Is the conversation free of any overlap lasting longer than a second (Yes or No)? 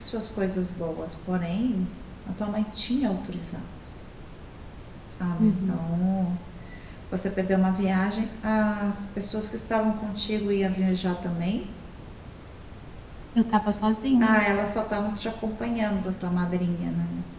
Yes